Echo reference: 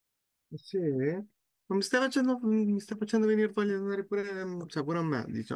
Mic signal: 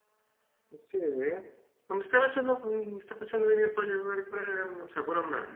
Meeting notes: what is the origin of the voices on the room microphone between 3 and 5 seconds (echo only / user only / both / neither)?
echo only